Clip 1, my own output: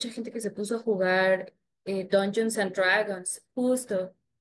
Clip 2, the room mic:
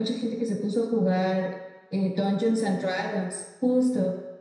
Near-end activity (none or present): none